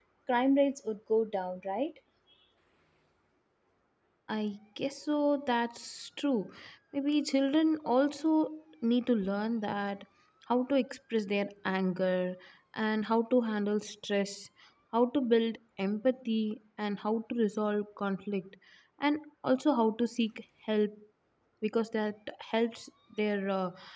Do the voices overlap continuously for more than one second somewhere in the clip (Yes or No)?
No